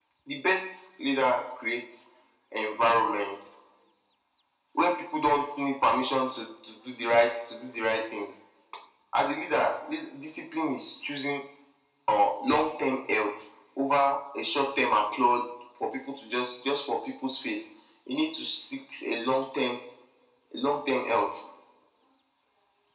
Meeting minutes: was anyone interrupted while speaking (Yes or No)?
No